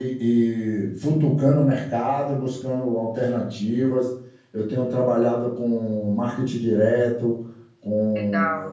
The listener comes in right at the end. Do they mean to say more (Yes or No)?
No